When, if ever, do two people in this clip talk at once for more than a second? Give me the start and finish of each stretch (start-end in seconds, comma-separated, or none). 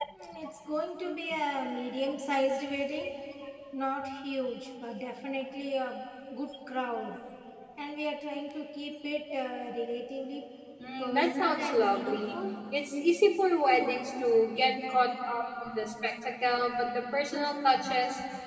11.0-12.4